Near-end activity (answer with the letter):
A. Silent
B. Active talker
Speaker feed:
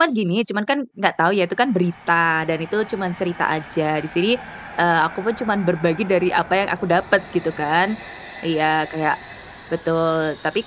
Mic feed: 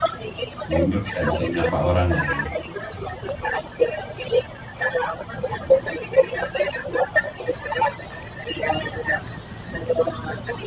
B